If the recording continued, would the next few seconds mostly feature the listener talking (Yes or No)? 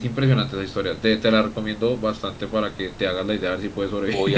Yes